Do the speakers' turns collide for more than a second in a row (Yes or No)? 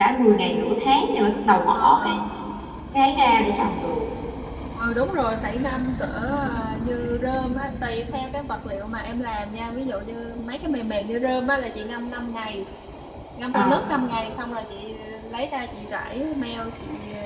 No